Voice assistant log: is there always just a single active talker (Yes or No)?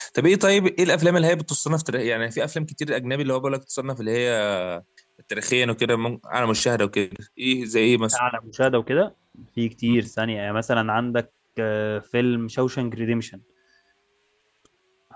Yes